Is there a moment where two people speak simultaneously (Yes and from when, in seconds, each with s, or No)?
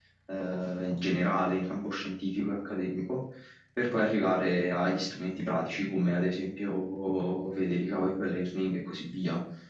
No